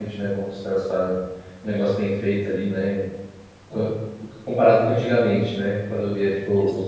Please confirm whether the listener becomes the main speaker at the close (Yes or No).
No